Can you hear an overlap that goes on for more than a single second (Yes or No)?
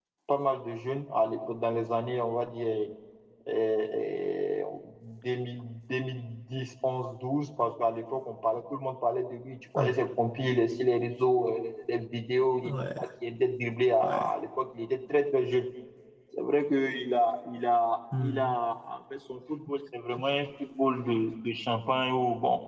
No